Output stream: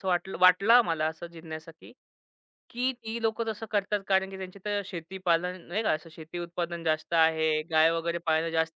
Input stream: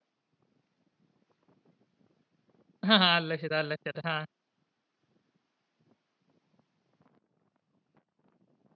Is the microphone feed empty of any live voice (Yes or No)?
No